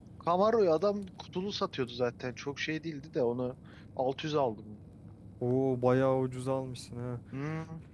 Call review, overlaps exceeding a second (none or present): none